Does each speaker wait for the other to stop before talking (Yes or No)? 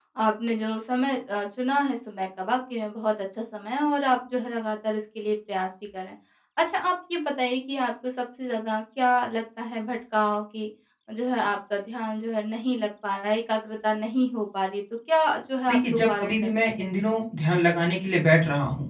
No